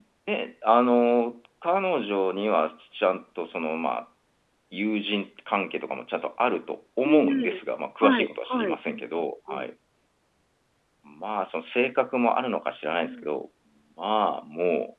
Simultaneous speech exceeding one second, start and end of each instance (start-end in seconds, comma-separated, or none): 8.0-9.7